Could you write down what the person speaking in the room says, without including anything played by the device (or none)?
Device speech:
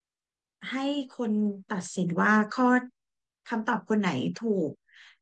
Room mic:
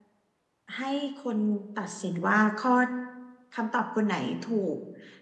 none